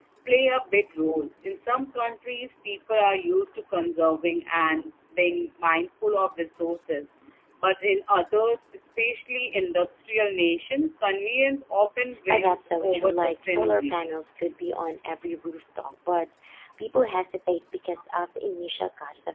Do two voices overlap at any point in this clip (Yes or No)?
Yes